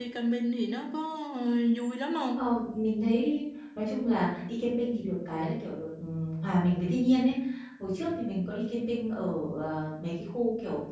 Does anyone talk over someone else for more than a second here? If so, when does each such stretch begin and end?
none

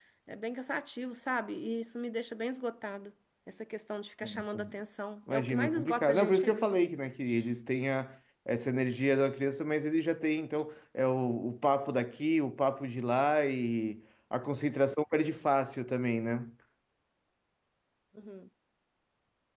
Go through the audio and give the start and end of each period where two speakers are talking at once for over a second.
5.3-6.7

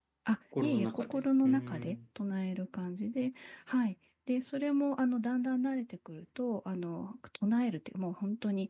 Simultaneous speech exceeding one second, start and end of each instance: 0.6-2.0

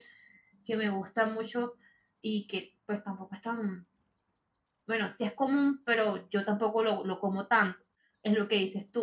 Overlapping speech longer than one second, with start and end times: none

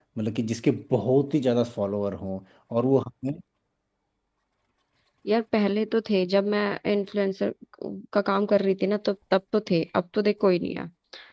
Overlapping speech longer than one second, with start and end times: none

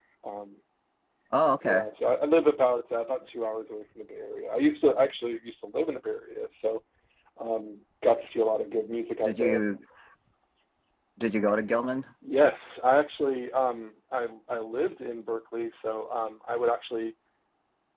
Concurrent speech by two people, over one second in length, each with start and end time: none

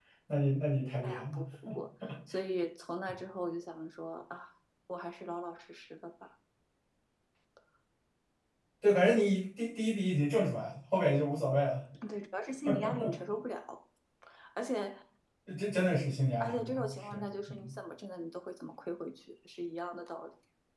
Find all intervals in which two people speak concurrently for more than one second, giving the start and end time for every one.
16.4-17.7

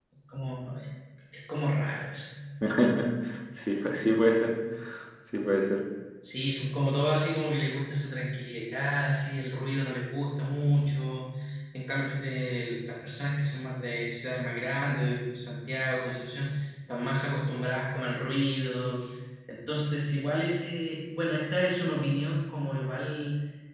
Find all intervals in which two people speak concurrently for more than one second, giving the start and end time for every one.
none

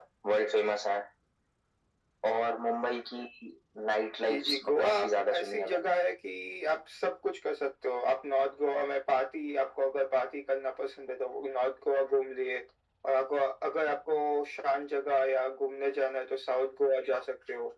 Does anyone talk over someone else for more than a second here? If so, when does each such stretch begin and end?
4.2-6.0

